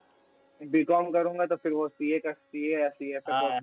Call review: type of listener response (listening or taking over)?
taking over